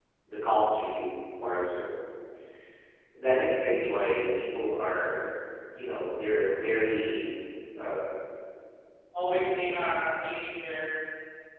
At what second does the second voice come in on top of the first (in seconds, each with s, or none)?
none